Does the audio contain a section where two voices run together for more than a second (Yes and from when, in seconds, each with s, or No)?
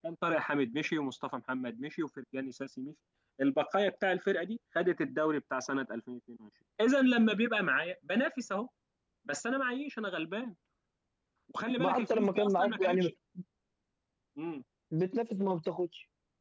Yes, from 11.8 s